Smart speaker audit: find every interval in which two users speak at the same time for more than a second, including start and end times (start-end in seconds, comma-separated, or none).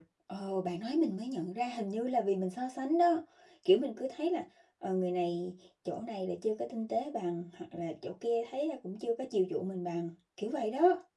none